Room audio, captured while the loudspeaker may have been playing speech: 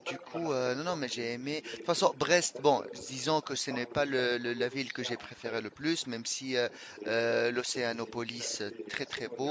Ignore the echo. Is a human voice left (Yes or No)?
Yes